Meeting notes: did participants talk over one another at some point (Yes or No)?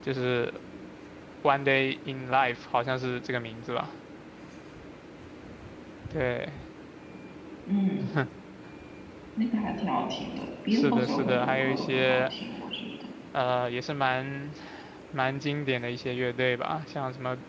Yes